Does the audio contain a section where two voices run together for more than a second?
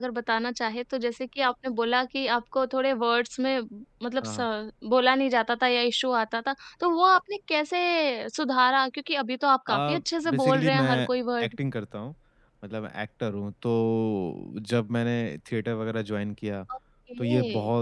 Yes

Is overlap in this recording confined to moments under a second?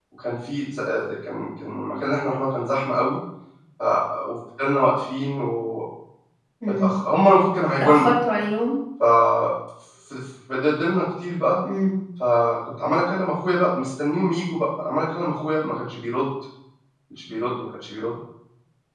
Yes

